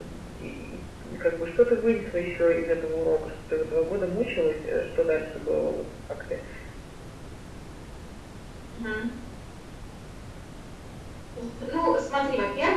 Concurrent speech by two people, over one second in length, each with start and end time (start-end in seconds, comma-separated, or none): none